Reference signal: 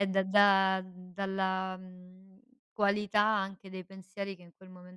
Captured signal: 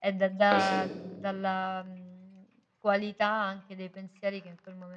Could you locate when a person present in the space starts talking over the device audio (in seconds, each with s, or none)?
0.5 s